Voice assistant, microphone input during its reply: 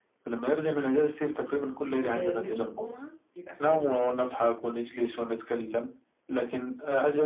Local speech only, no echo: و... ويوم الجمعة بيبقى فاميلي بحت

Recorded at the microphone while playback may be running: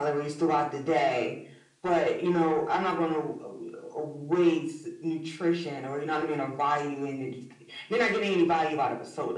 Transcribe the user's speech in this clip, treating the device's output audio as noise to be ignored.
none

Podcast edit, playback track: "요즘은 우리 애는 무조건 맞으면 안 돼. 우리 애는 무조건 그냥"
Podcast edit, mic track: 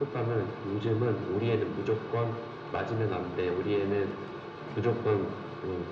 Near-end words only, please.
none

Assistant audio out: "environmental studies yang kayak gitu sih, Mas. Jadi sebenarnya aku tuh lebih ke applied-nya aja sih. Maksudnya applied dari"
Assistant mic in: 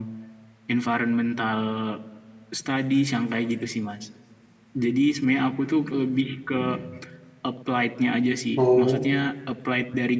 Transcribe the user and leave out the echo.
Oh,

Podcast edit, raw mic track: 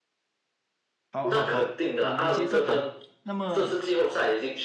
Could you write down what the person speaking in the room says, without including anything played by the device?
好，好，好，我们接着谈。那么

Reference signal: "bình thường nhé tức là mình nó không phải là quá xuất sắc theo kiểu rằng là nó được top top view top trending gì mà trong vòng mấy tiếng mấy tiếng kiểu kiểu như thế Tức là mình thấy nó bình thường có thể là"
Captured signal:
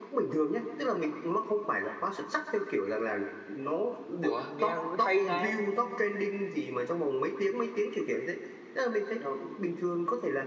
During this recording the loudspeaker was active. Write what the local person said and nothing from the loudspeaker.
ủa nghe hay này

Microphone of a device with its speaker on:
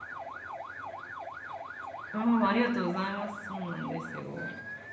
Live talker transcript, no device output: う。うん、ありがとうございます。そうなんですよ。

